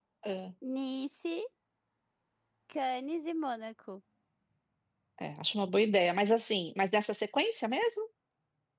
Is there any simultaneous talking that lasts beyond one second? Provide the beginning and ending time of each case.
none

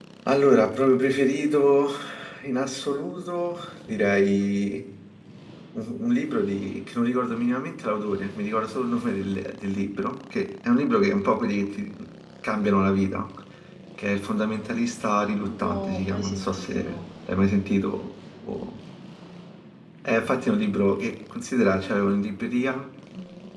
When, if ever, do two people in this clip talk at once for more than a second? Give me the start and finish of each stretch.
15.6-16.8

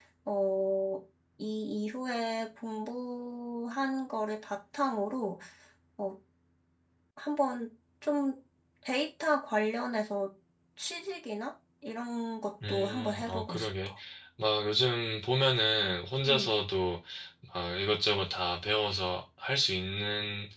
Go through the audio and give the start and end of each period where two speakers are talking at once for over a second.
12.7-13.9

